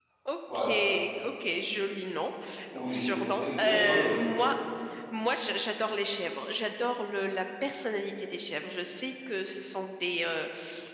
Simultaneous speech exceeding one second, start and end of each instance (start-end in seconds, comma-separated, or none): 2.8-4.1